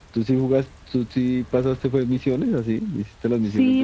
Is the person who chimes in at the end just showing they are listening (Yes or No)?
No